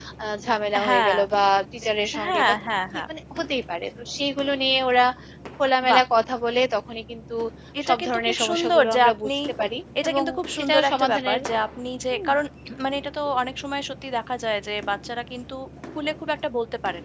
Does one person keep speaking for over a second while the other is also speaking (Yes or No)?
Yes